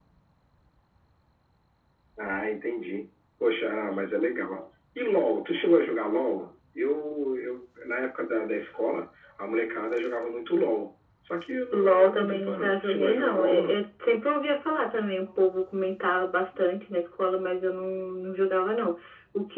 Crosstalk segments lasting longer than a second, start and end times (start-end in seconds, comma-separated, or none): 11.7-13.8